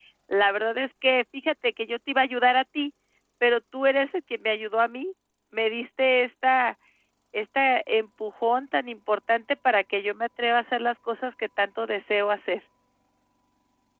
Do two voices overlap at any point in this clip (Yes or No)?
No